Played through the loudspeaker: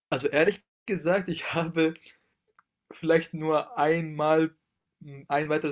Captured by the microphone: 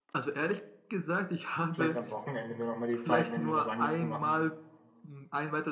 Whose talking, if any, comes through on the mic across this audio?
both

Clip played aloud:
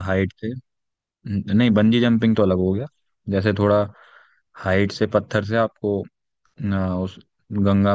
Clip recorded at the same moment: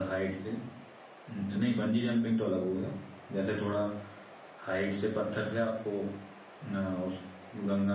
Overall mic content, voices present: echo only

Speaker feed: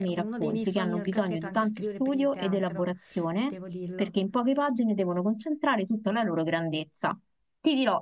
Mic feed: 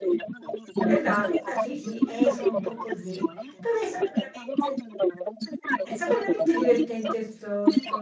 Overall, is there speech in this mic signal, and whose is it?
both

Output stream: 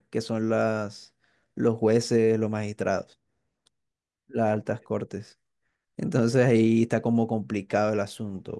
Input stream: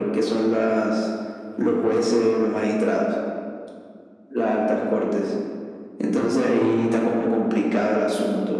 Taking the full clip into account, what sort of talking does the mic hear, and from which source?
echo only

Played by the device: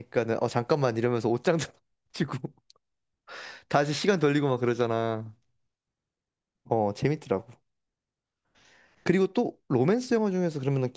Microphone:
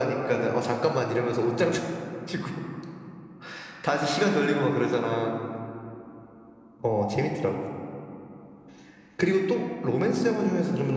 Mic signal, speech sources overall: echo only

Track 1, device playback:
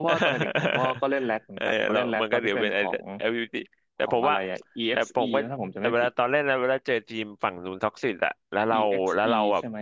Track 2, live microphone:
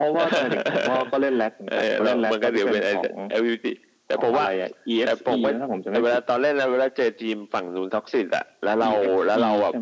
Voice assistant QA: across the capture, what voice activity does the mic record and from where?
echo only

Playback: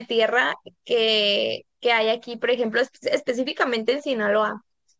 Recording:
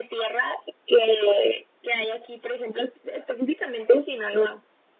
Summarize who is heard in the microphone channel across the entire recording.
echo only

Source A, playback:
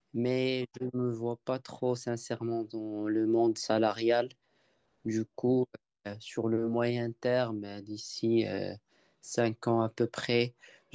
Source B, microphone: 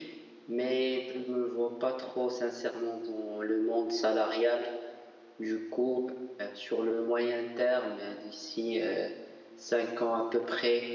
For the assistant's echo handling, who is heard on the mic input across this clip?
echo only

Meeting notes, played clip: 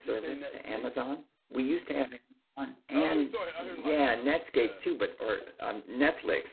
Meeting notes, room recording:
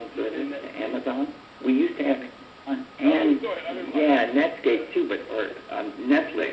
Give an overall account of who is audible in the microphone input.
echo only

